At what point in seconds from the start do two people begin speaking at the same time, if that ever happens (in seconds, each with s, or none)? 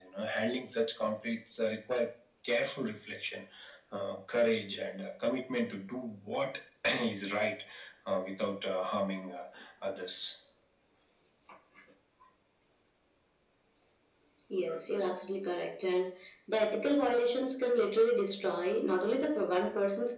none